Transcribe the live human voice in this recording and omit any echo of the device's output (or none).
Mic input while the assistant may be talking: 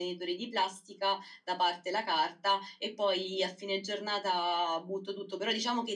none